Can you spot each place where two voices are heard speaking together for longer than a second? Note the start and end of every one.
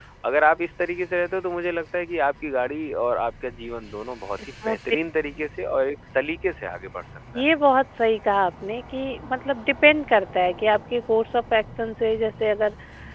none

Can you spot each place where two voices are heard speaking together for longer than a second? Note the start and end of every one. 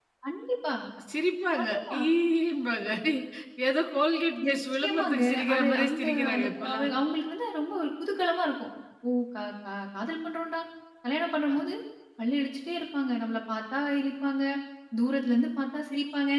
4.4-6.9

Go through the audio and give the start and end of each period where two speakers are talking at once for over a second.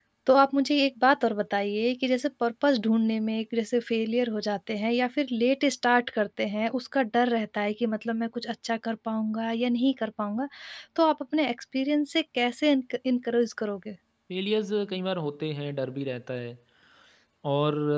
none

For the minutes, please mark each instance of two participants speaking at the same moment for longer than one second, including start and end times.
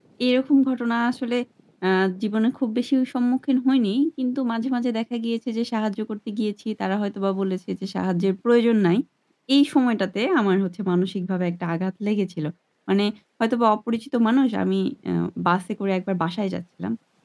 none

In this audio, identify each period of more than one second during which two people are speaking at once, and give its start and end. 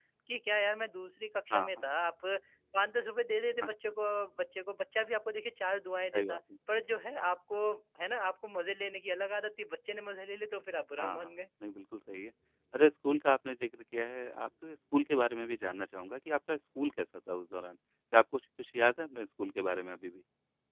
none

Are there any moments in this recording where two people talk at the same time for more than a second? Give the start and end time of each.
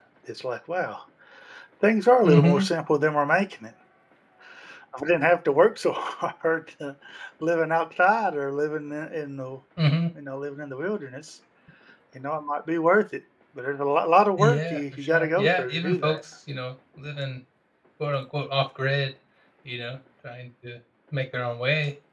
14.4-16.2

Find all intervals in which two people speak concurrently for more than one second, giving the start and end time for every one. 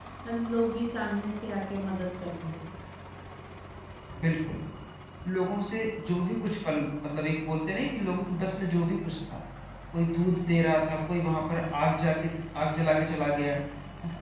none

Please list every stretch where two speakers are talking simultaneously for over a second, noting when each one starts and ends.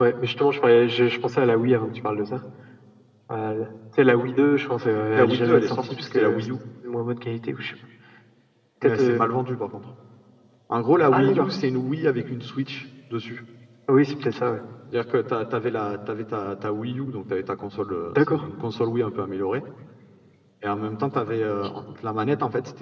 5.2-6.5

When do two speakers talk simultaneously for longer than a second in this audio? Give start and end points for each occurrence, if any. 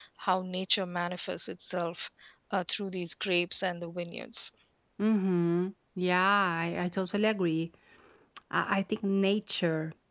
none

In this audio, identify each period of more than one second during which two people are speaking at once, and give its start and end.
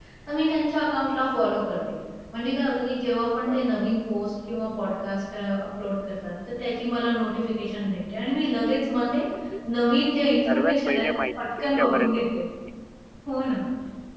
10.4-12.4

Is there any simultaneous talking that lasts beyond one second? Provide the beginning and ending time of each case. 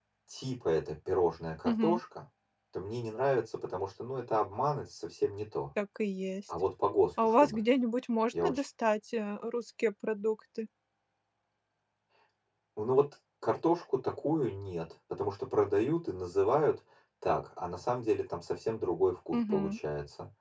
none

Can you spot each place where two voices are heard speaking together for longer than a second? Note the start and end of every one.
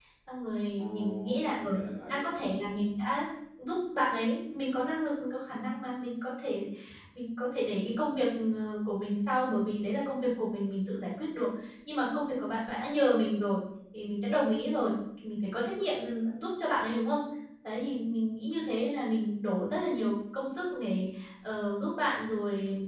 0.8-2.3

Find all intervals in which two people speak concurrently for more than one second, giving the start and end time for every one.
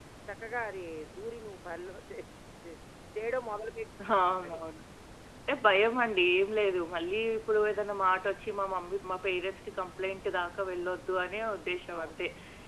none

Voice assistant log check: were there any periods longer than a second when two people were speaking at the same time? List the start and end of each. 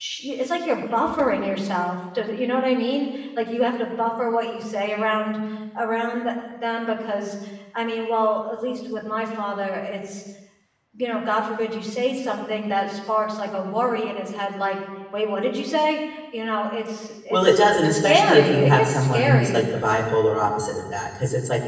17.3-19.6

